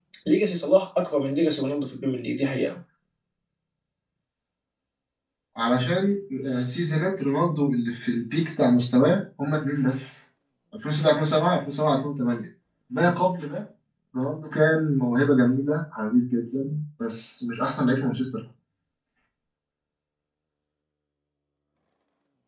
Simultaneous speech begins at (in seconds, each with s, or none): none